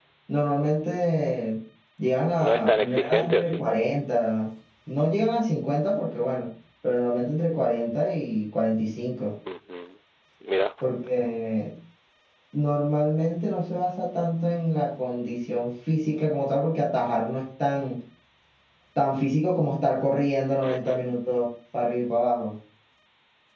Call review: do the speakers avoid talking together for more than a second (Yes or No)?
No